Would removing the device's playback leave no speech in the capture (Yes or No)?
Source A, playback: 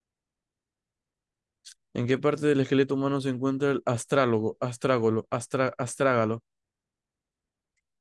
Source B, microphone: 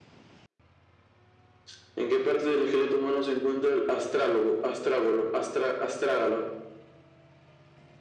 Yes